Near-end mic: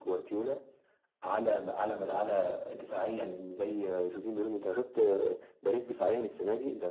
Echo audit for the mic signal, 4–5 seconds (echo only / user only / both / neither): echo only